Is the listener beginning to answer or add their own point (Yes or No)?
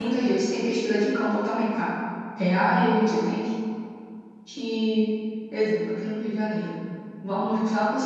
No